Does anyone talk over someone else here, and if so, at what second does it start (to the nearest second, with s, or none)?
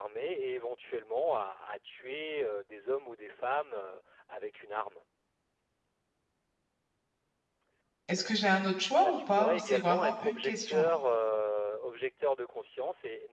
9 s